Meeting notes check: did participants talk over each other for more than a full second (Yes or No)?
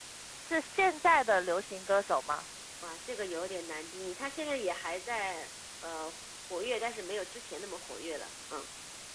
No